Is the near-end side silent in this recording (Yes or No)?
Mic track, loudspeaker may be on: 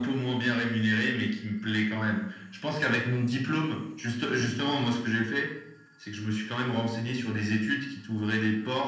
Yes